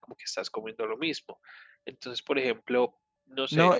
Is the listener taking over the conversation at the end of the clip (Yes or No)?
Yes